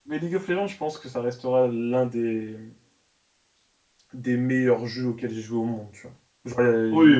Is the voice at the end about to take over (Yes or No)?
Yes